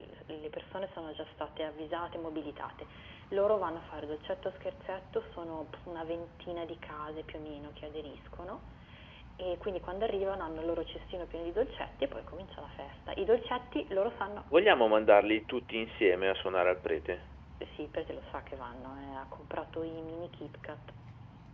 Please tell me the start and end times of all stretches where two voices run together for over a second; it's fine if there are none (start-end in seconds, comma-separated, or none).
none